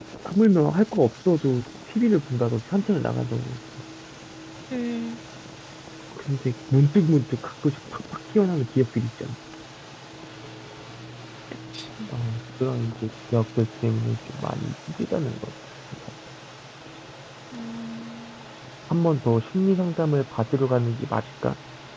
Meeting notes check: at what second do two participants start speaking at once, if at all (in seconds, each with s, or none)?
none